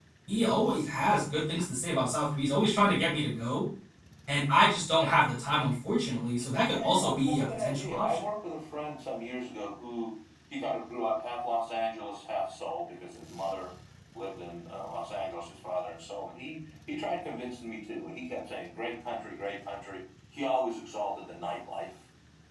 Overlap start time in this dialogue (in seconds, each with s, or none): 6.7 s